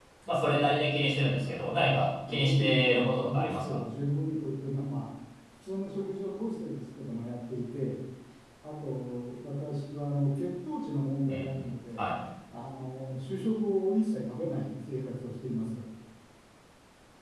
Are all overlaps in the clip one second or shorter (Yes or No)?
No